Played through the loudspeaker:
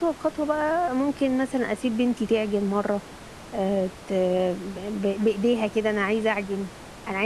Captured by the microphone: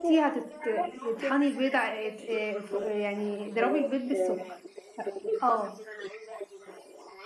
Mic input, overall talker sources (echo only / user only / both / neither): both